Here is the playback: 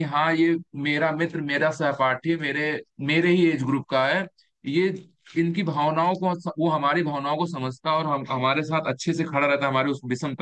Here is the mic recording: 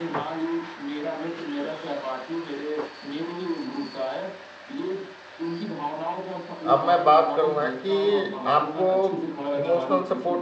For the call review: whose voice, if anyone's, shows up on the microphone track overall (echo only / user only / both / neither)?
both